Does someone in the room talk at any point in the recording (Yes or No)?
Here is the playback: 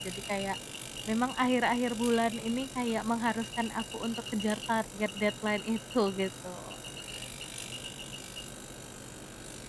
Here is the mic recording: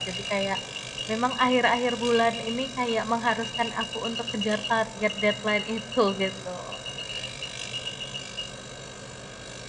No